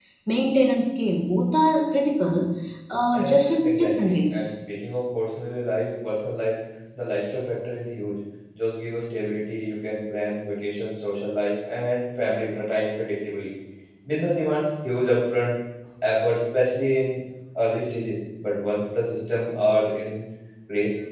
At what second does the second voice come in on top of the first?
3 s

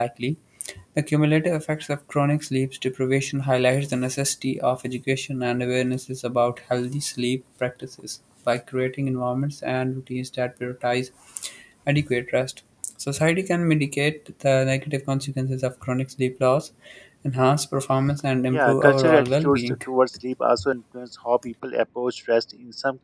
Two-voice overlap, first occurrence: 19 s

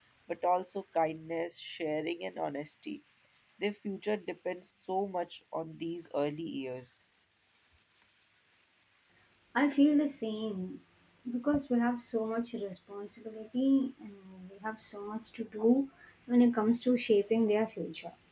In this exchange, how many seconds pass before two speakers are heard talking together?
none

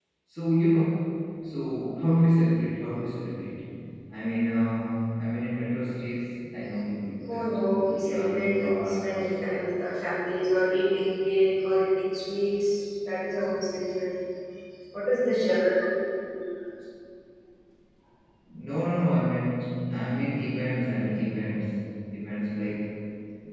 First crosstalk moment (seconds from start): 7 s

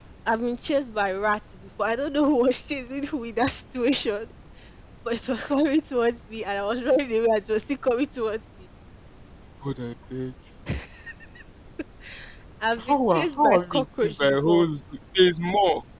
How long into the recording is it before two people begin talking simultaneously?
13 s

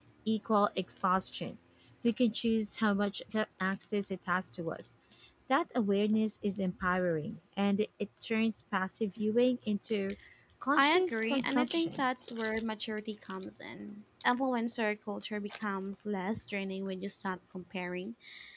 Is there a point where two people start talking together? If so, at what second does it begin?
11 s

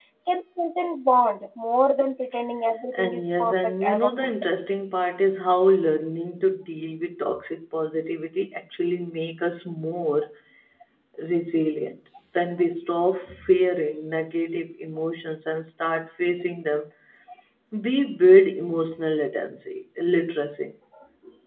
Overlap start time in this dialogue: 3 s

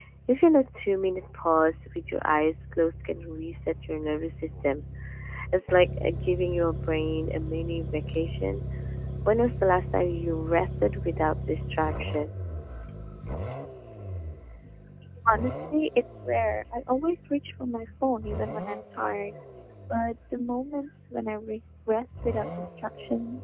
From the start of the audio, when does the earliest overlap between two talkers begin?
none

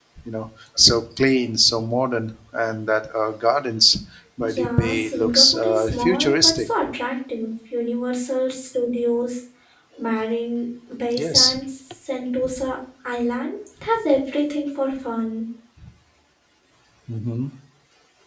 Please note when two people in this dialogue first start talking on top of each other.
4 s

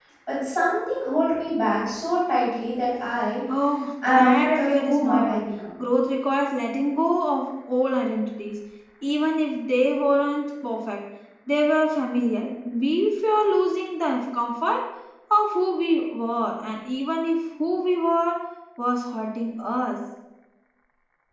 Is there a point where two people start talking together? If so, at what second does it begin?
4 s

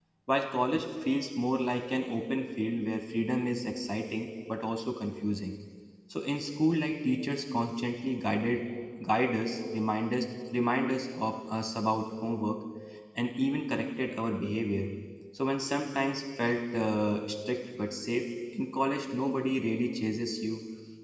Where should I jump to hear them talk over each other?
none

